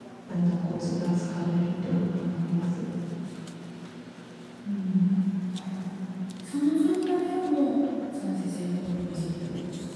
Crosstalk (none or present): none